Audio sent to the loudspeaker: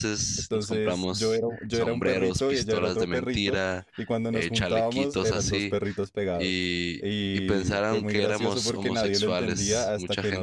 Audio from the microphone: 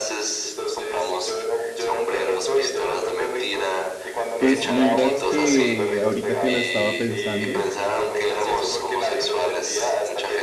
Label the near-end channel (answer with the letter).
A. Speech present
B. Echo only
A